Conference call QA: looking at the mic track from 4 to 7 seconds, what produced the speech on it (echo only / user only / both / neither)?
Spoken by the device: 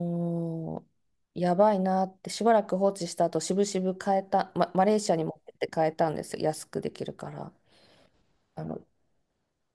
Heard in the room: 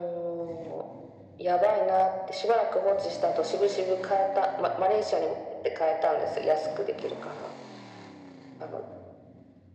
echo only